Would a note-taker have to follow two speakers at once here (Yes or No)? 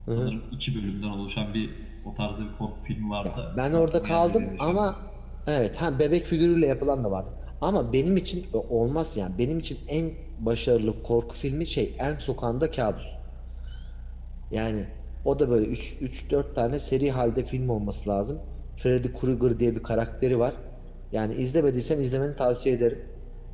Yes